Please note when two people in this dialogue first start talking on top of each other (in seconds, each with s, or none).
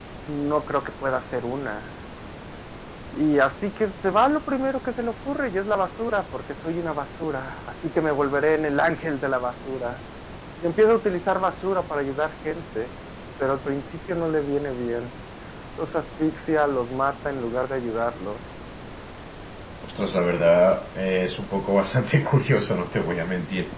none